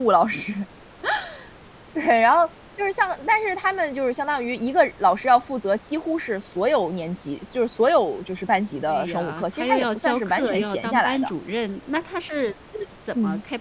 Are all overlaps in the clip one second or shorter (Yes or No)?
No